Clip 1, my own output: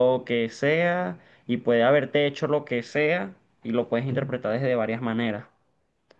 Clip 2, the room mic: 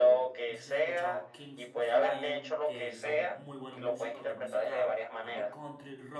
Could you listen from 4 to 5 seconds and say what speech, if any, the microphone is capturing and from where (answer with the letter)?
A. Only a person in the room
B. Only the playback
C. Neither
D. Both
D